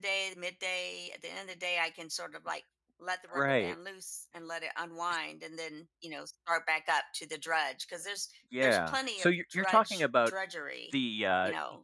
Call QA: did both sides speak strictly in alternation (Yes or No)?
No